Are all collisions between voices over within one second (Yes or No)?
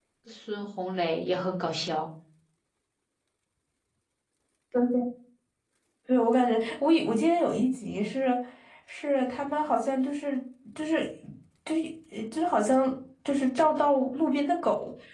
Yes